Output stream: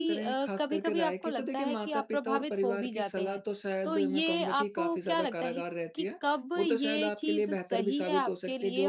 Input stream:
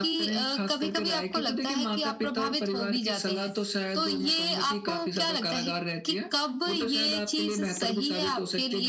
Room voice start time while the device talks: none

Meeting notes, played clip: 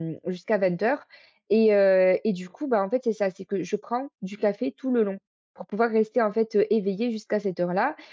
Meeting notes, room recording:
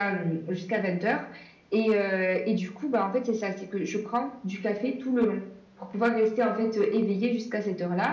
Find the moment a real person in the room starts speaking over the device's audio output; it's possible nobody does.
none

